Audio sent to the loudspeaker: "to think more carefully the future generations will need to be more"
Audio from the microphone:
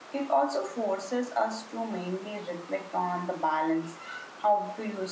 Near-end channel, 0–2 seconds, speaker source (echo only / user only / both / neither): user only